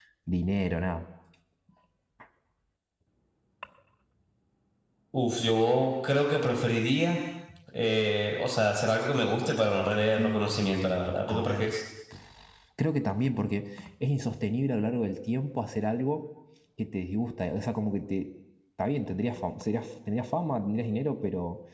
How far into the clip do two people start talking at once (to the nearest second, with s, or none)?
10 s